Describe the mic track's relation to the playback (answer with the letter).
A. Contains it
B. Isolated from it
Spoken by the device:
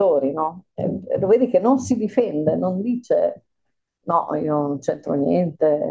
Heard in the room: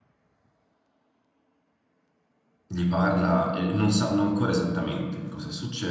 B